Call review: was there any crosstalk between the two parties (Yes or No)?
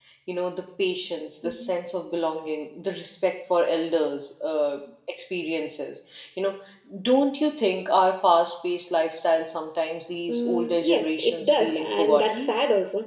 Yes